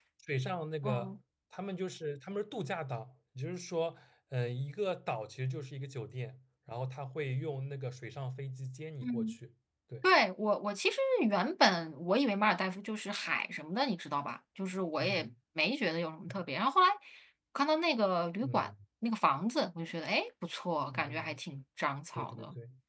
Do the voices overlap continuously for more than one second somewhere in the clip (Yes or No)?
No